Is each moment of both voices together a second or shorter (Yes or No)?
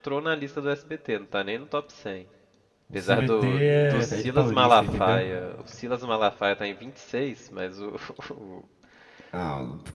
No